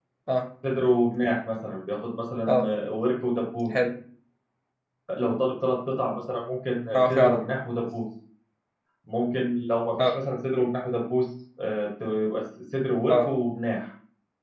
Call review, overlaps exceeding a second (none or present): none